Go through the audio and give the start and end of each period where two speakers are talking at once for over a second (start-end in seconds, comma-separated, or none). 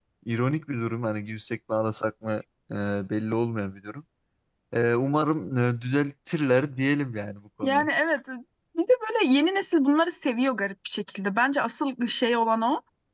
none